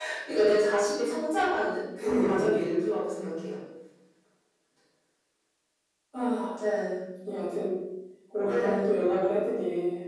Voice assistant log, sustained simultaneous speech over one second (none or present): none